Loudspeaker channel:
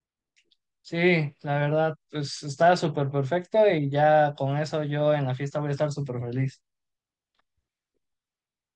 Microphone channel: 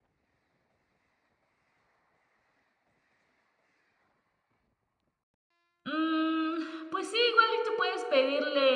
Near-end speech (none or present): present